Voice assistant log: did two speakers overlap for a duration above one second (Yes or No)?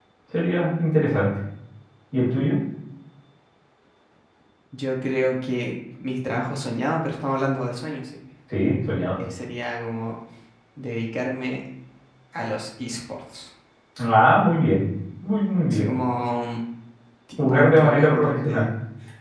Yes